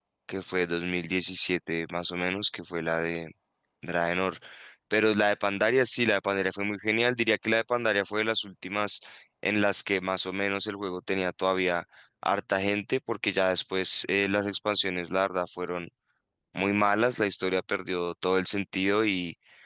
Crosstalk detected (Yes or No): No